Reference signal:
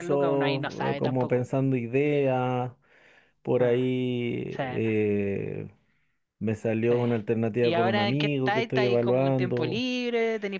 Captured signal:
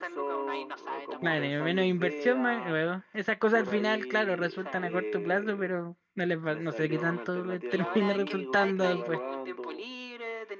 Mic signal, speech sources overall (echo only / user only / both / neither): both